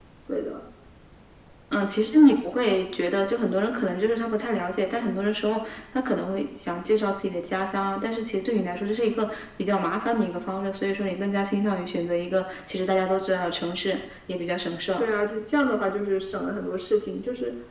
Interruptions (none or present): none